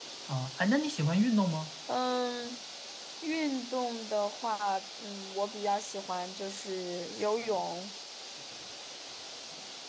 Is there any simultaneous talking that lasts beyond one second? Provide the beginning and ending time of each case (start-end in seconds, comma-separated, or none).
none